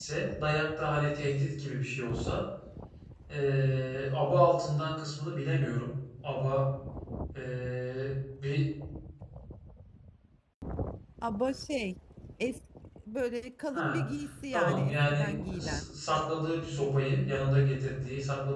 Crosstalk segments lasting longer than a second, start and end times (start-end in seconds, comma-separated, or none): 14.5-15.8